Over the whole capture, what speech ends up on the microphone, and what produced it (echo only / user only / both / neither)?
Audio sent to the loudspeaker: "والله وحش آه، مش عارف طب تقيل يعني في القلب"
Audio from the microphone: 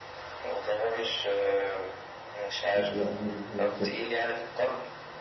both